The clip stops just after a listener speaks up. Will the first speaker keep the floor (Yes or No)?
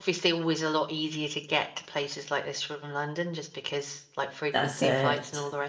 Yes